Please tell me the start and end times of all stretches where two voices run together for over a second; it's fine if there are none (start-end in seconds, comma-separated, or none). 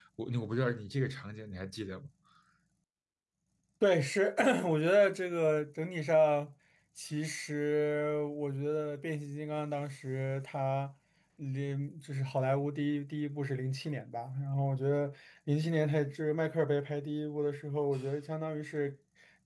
none